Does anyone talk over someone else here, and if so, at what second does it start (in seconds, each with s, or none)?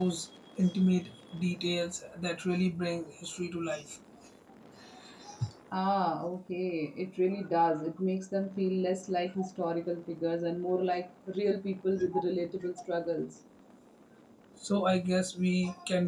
none